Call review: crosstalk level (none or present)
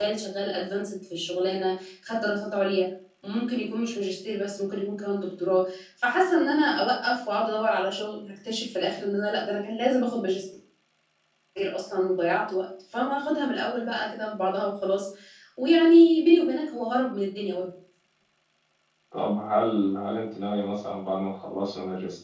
none